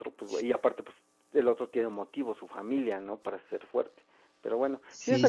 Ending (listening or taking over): listening